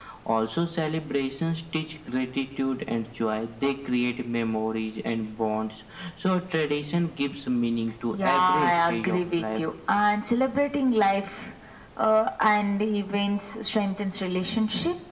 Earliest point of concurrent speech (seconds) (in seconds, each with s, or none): 8.1 s